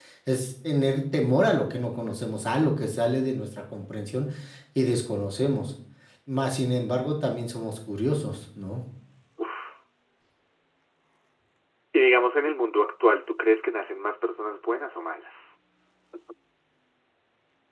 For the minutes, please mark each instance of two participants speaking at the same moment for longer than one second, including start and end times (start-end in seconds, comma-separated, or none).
none